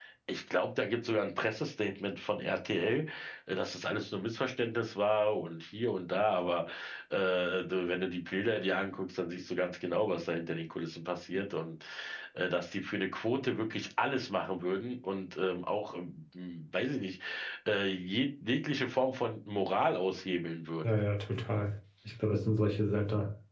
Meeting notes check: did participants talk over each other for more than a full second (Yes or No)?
No